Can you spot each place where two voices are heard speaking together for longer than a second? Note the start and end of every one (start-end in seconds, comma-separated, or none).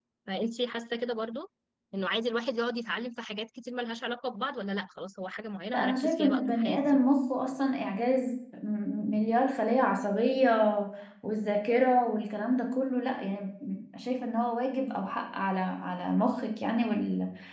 5.7-7.0